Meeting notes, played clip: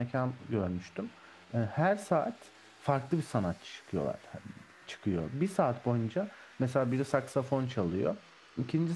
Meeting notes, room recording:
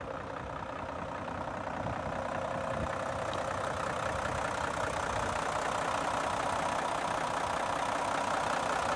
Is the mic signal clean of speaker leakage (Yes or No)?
Yes